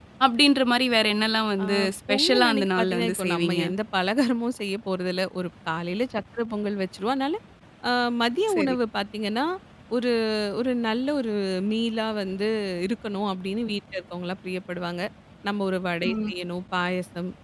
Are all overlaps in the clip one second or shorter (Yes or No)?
No